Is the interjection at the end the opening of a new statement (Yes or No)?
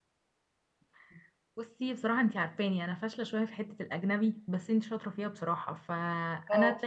No